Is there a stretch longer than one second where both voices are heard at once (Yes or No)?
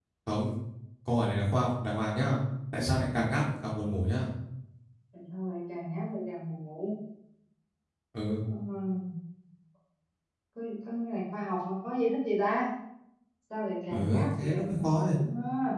Yes